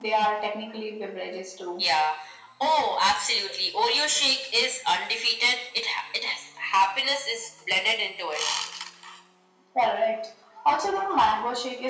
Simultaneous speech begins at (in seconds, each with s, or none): none